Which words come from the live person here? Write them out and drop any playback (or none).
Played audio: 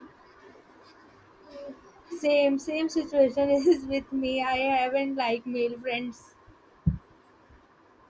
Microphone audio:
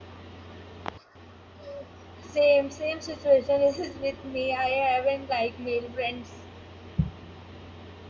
none